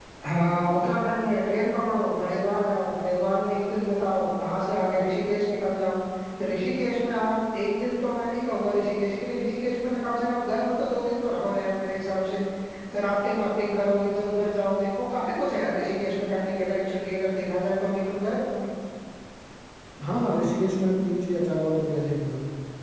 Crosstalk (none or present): none